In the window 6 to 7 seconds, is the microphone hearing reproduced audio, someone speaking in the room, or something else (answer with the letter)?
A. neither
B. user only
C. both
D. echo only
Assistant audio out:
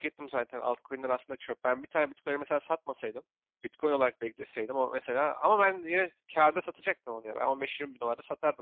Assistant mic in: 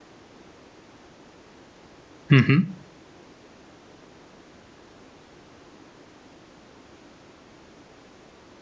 A